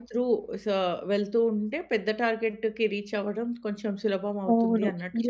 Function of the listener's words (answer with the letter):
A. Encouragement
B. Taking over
B